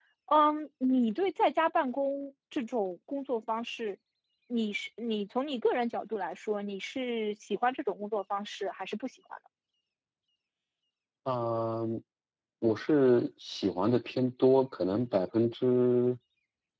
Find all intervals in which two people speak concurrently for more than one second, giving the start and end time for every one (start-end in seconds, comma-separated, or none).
none